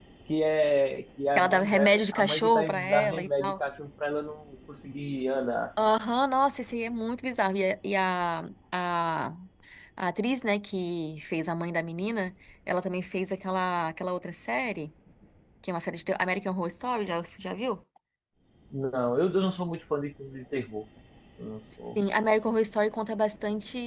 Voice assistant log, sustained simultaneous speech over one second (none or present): present